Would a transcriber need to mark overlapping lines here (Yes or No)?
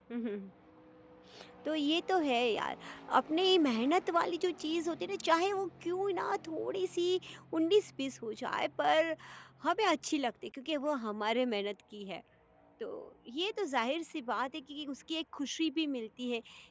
No